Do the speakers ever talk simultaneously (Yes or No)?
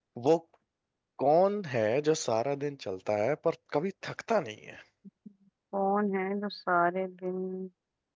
No